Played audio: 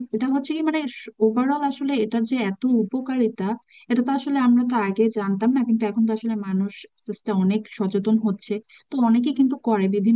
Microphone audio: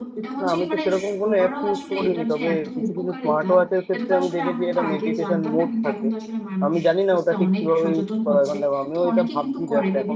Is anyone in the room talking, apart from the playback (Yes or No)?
Yes